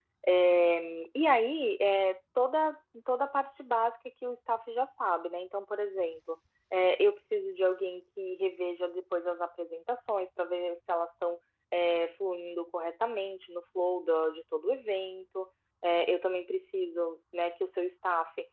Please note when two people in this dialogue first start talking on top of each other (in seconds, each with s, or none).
none